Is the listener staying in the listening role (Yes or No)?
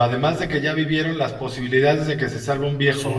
Yes